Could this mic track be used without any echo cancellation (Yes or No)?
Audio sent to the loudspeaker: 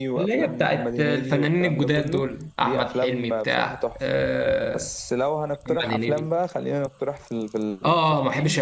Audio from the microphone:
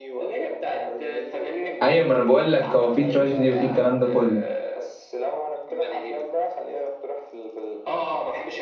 No